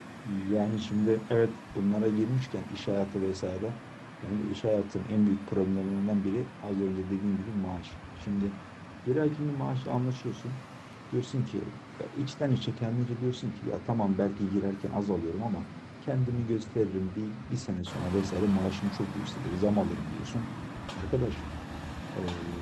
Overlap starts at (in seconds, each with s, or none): none